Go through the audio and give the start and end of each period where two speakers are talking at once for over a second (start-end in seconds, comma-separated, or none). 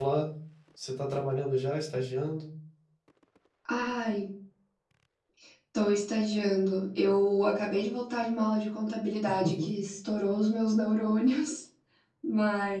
none